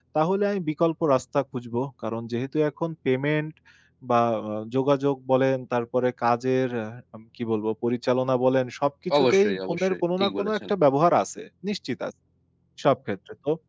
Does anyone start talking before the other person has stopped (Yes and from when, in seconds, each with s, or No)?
Yes, from 9.1 s